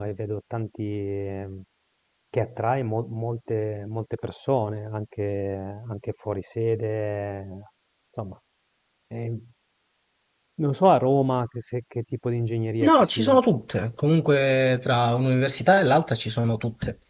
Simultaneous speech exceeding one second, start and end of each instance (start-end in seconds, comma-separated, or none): none